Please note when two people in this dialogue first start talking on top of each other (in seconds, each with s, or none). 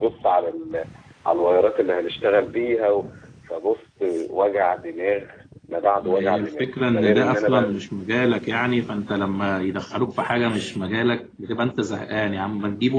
6.0 s